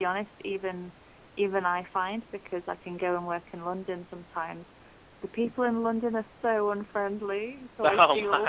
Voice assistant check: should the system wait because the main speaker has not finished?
Yes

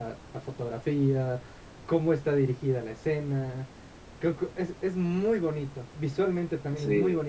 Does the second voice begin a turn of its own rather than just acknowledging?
No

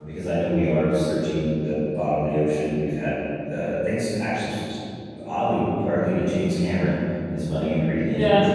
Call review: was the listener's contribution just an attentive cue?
No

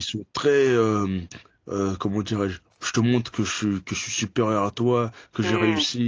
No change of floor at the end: Yes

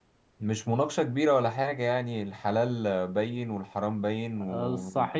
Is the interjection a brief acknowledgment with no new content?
No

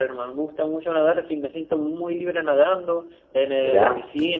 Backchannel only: Yes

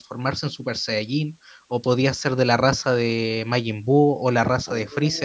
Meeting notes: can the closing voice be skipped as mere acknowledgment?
No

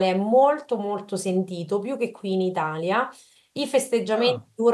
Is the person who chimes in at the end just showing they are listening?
Yes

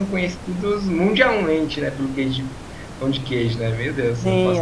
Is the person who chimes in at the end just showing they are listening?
No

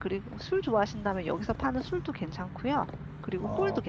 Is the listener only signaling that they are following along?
No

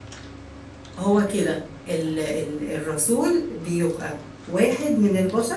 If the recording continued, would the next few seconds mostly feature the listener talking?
No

